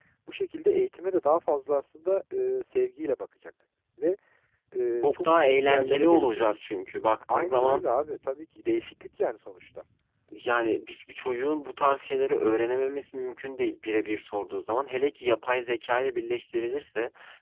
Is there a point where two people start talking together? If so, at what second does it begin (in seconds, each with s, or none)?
5.0 s